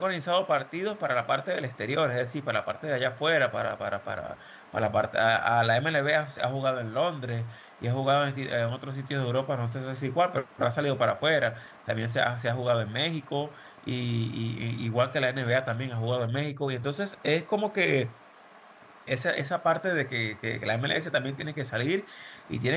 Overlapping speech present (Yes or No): No